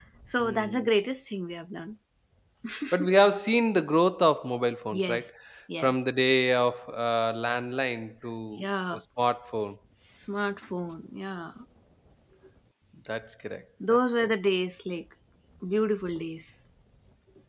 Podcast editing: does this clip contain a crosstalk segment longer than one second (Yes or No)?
No